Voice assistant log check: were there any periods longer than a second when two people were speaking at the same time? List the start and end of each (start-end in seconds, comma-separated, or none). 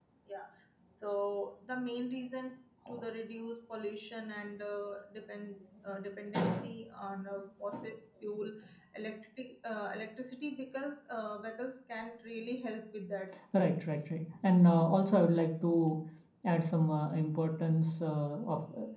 none